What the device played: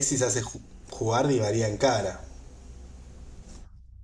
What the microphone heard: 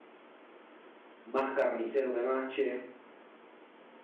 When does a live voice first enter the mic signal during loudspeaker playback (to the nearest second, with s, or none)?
1 s